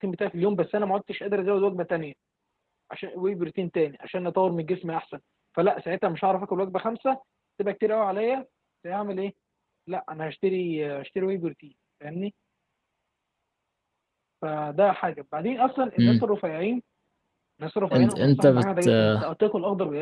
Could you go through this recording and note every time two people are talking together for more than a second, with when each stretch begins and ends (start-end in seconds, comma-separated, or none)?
17.9-19.3